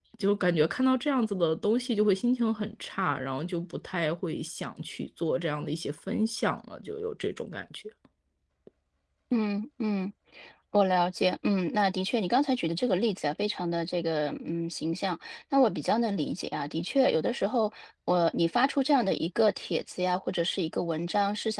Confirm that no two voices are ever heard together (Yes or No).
Yes